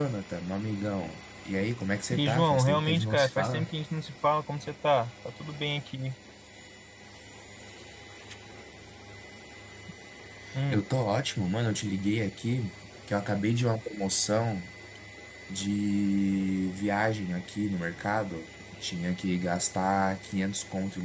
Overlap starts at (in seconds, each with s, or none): 2.1 s